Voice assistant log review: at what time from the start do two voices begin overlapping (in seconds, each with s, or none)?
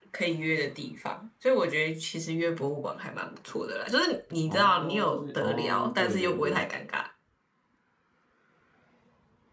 4.5 s